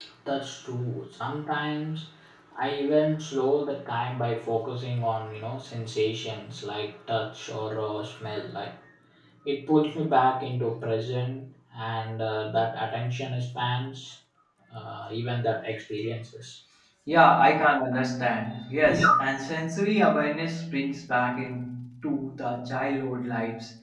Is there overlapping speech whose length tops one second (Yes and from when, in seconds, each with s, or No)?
No